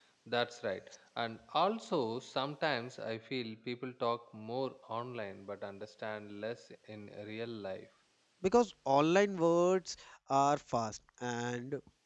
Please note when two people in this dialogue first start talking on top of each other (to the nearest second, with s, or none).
none